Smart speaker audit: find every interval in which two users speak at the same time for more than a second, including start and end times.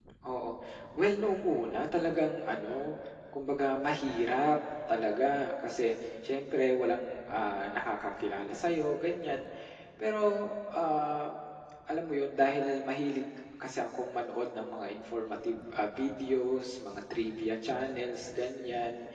none

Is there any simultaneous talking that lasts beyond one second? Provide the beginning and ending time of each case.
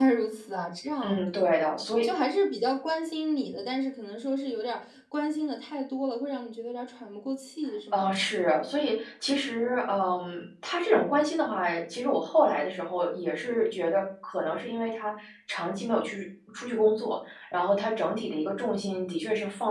none

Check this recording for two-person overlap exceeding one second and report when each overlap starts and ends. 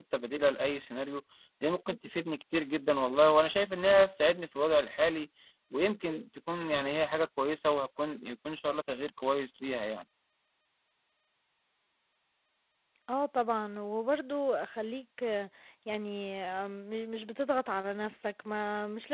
none

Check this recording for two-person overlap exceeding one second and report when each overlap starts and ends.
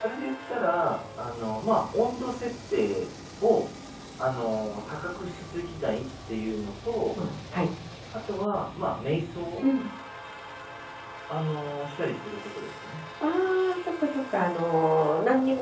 none

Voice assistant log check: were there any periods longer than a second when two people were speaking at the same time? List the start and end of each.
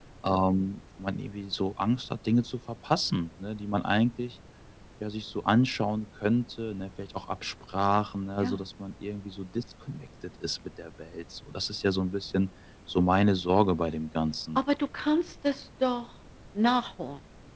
none

